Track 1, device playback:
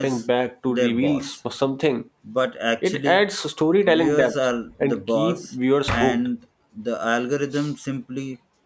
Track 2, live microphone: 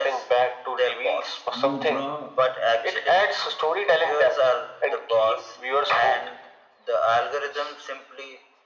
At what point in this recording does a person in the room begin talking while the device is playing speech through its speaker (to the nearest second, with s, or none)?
2 s